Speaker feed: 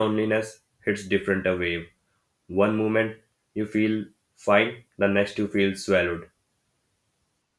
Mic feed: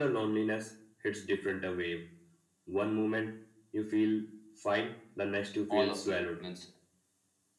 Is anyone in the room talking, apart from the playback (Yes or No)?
Yes